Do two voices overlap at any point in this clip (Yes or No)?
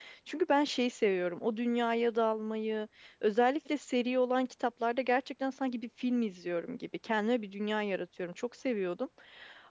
No